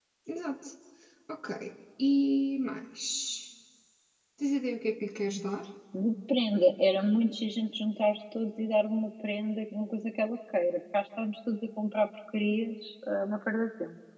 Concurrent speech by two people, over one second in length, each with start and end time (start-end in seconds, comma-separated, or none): none